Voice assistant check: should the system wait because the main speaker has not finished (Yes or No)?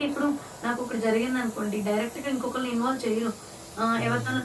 Yes